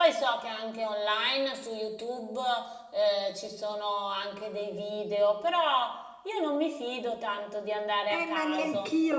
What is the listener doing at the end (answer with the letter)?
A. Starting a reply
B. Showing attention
A